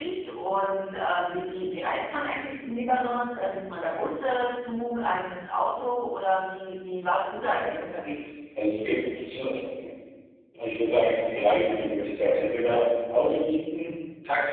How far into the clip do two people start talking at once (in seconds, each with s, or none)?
none